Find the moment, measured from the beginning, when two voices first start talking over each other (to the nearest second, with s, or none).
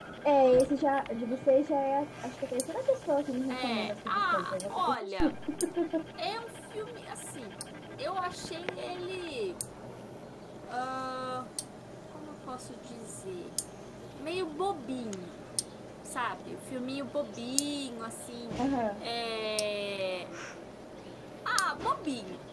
3 s